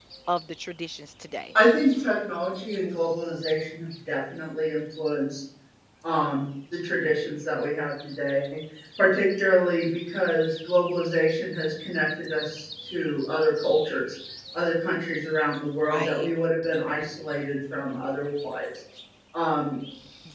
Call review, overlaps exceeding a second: none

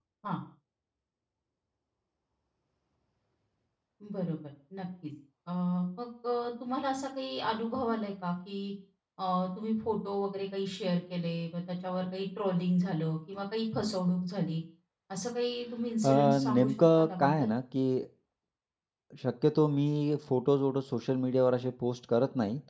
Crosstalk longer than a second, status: present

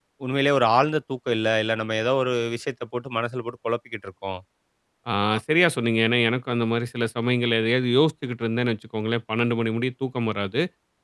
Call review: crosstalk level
none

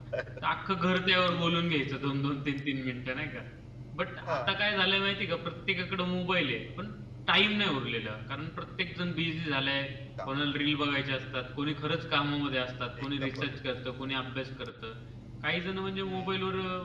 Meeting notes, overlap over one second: none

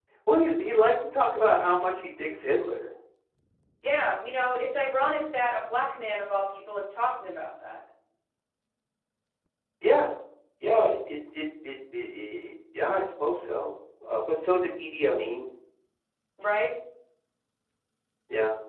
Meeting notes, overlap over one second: none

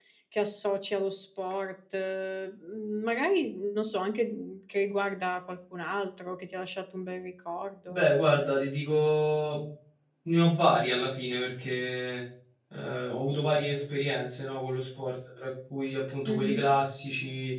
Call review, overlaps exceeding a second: none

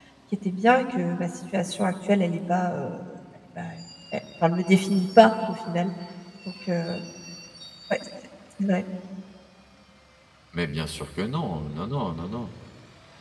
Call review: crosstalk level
none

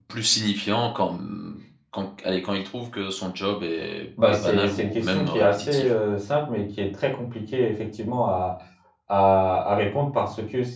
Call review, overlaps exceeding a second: present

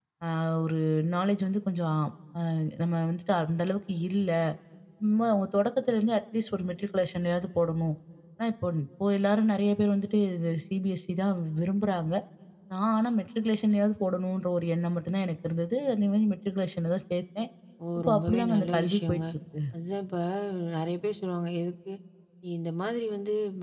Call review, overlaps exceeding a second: present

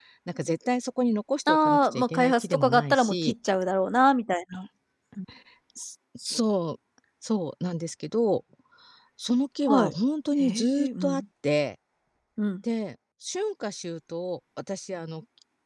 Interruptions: present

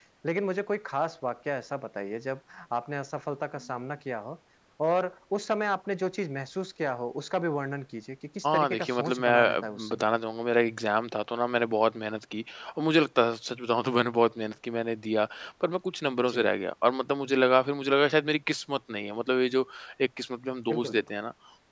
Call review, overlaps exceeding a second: present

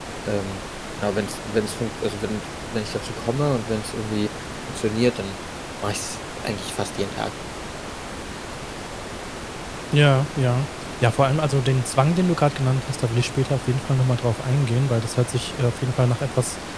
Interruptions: none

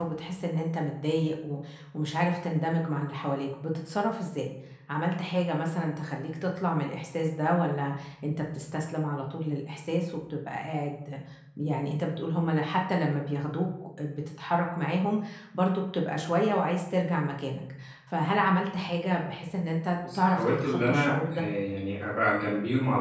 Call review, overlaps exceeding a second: present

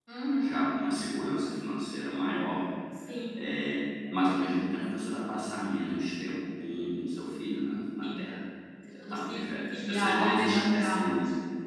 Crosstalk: present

